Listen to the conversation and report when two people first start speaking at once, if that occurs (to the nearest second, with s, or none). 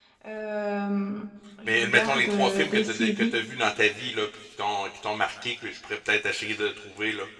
2 s